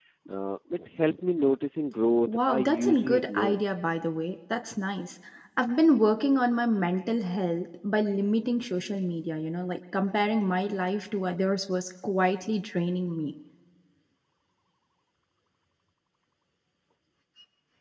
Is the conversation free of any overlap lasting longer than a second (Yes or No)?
No